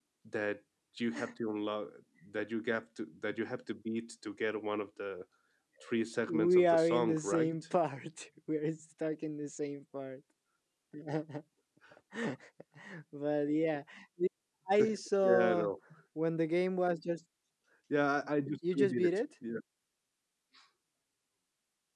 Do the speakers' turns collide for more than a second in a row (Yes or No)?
Yes